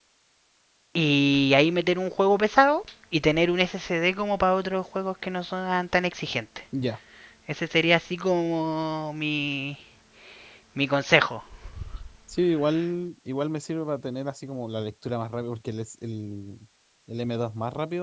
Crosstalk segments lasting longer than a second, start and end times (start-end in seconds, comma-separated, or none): none